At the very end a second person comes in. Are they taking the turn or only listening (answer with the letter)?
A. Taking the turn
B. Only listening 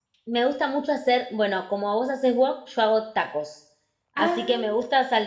B